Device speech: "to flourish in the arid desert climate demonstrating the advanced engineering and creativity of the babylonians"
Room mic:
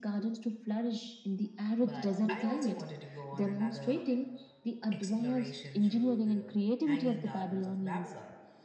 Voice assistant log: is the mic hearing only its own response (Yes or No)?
No